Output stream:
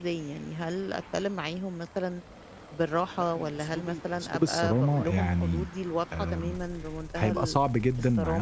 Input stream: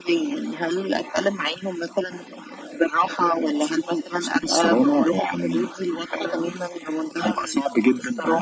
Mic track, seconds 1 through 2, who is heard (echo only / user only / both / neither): echo only